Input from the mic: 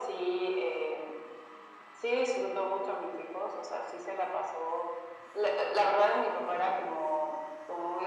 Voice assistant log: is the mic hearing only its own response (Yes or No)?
Yes